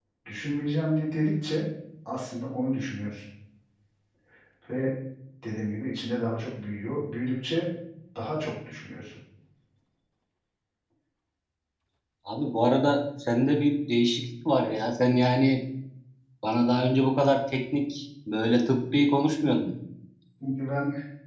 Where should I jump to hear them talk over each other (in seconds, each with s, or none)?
none